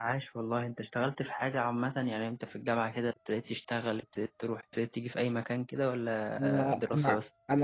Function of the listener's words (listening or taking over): taking over